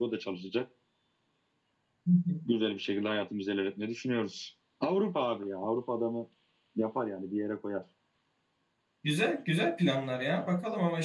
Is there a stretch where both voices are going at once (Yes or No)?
No